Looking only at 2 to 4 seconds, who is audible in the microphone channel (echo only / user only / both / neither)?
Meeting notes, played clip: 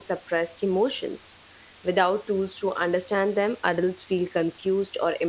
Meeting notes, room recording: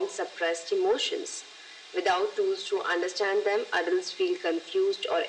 echo only